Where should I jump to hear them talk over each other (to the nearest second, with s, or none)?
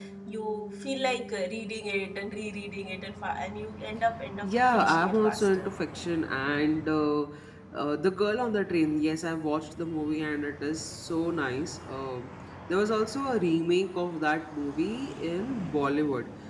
4 s